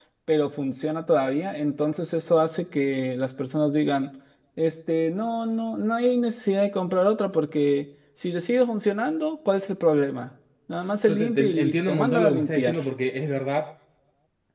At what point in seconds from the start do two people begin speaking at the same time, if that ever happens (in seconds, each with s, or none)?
11.1 s